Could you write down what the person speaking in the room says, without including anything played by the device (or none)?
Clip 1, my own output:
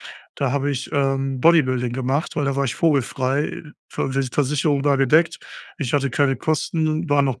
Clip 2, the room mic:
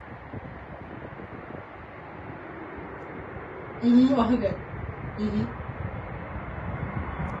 Mhm, okay. Mhm.